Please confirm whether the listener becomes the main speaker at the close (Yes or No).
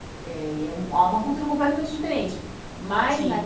No